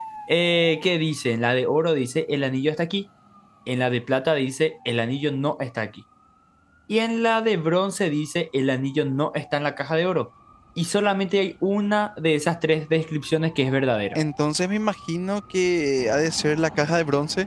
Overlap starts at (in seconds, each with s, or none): none